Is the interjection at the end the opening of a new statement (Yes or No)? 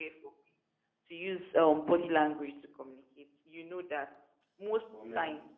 No